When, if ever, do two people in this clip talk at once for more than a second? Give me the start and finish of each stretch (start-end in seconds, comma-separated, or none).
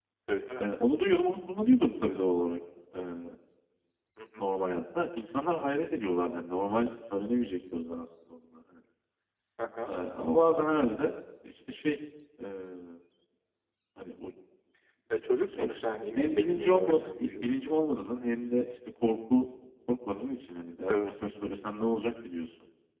16.1-17.4